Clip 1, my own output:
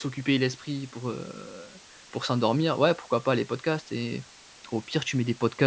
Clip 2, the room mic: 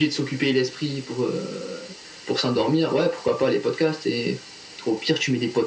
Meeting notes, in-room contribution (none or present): none